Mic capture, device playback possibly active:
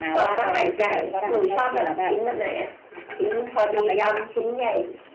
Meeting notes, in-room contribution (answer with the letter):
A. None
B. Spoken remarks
B